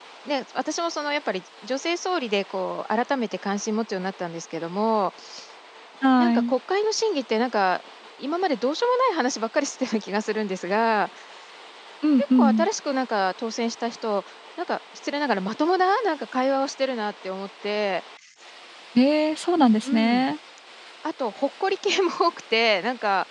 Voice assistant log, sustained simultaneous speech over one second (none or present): none